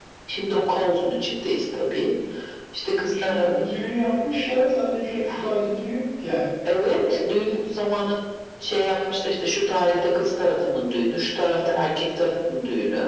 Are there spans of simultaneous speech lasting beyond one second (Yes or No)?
No